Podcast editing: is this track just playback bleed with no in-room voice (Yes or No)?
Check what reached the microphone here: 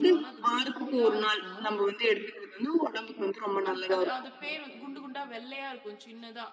No